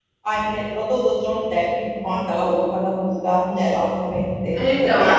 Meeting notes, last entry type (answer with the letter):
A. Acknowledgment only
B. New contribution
B